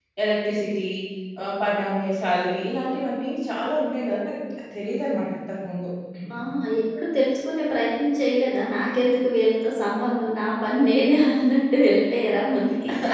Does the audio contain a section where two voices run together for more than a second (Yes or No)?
No